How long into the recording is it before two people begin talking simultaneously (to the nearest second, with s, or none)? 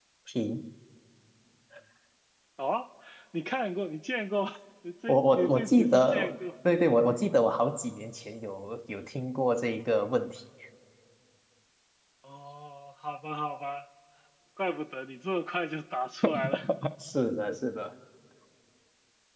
5 s